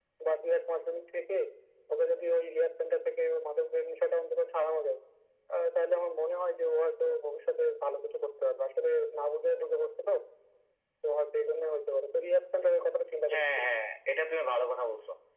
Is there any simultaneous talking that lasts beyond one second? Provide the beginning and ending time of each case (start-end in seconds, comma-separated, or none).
none